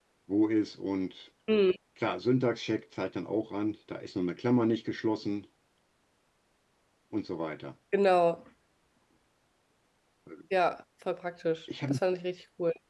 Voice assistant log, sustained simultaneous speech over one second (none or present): none